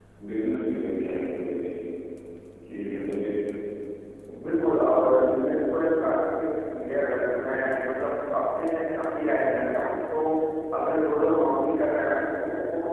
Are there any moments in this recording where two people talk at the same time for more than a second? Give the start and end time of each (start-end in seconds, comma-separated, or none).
none